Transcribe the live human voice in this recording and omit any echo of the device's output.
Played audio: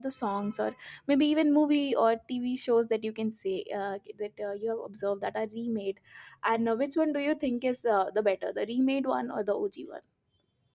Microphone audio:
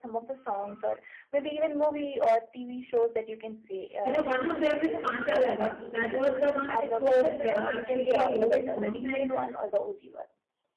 You know, one of them is Kanta Laga. That was the one which was uh, actually an old song, and

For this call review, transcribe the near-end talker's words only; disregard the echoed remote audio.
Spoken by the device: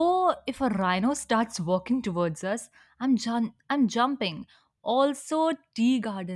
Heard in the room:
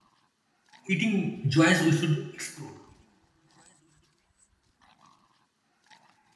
eating joints we should explore.

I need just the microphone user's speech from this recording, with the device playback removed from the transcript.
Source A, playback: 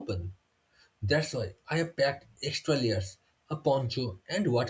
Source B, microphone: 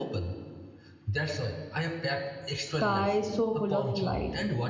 sky so full of light.

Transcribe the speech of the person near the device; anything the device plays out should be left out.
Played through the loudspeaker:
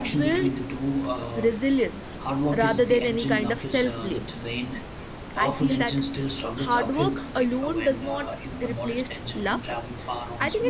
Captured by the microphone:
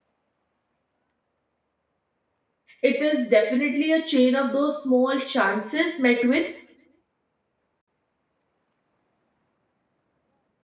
It is definitely a chain of those small chances met with

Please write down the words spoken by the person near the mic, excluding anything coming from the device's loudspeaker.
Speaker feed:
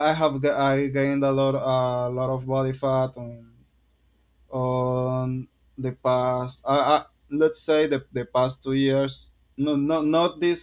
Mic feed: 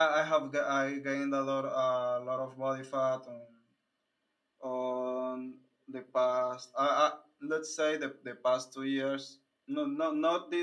none

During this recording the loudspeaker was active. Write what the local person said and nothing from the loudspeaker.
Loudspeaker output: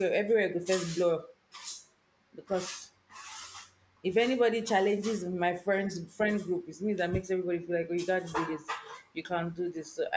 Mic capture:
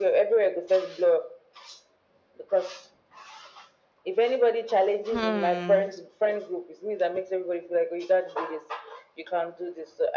Hmm.

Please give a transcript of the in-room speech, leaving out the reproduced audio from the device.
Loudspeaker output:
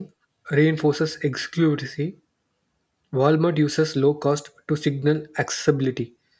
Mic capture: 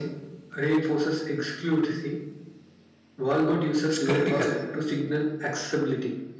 It's critical.

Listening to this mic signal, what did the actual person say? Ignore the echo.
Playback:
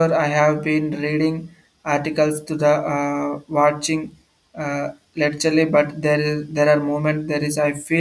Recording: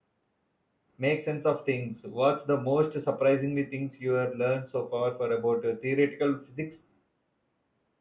make sense of things. What's the most surprisingly things you have learned so far for about uh, theoretical physics?

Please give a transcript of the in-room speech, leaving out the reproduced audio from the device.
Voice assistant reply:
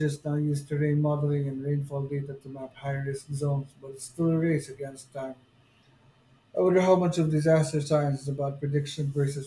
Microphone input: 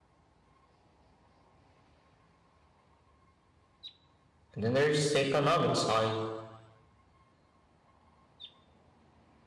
And then there's the economic side.

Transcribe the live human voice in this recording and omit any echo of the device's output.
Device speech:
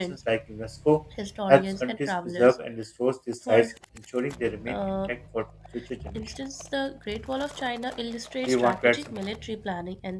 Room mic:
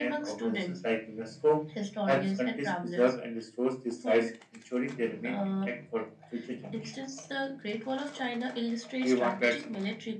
none

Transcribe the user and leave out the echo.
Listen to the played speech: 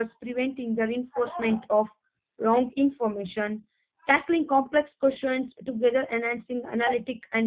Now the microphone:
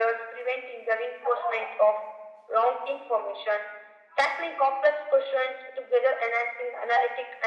none

